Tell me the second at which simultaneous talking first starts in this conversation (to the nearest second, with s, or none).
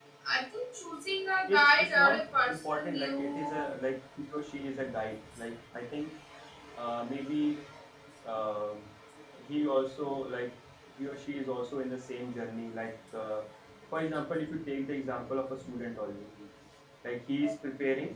1 s